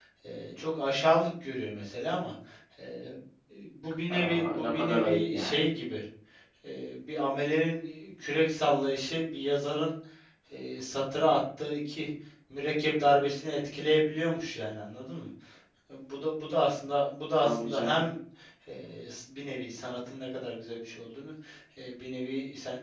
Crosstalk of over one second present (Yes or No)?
Yes